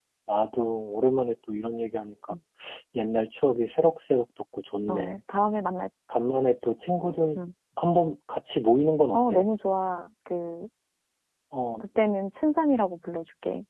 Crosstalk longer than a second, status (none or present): none